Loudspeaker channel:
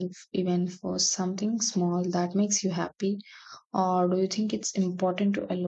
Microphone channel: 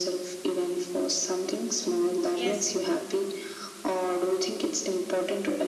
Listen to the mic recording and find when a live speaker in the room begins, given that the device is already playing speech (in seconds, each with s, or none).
2.3 s